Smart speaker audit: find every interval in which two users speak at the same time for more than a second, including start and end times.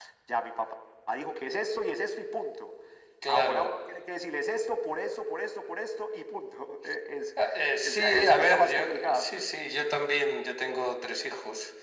7.8-9.4

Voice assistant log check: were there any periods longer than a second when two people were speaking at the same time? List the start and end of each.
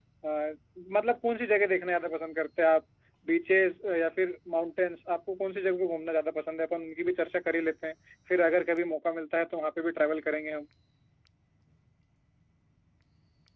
none

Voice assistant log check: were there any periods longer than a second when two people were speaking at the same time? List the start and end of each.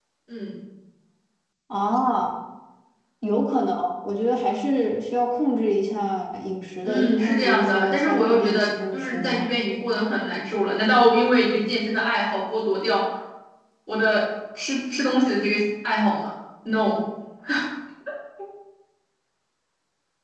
6.8-9.5

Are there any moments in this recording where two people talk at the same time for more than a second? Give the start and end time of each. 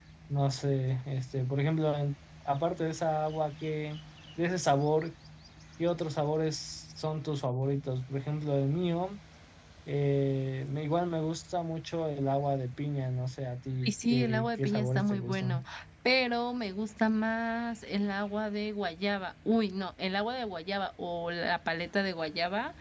13.8-15.6

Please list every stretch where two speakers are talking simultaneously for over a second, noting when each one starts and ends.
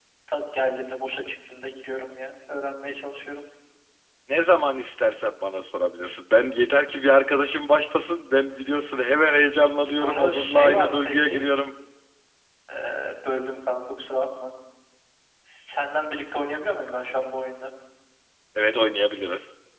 10.0-11.4

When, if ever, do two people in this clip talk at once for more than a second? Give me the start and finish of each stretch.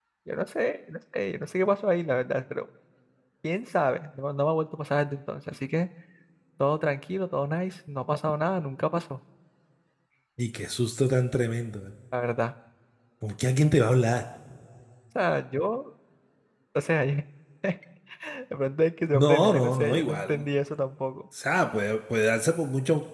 19.1-20.4

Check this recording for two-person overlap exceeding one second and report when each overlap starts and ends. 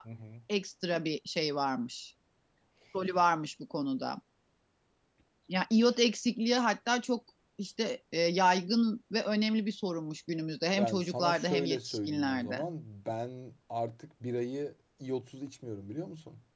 10.8-12.6

